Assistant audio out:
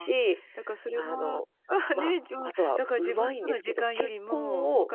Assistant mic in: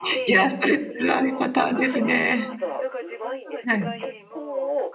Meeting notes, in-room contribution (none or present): present